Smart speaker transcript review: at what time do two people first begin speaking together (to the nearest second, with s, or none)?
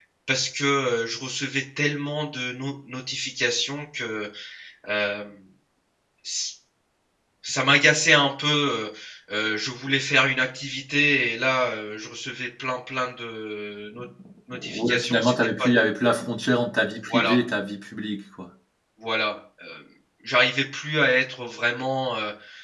15 s